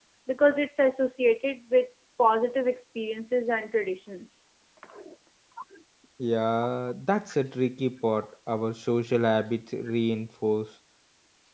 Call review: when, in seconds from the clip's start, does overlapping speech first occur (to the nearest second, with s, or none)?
none